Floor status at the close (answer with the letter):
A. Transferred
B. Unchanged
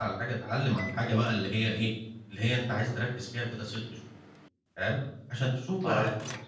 B